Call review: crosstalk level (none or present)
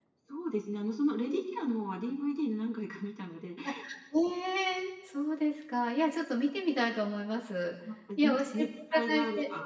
present